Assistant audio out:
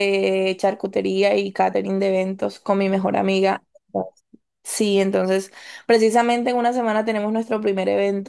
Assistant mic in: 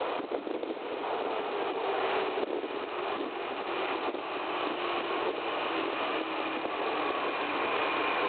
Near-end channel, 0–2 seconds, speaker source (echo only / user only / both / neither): neither